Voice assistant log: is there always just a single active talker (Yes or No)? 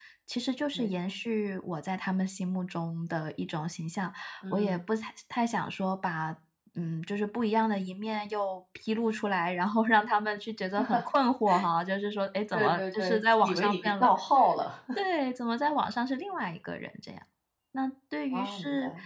No